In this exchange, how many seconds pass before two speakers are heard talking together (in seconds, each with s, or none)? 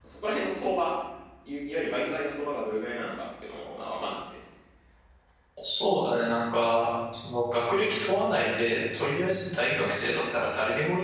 none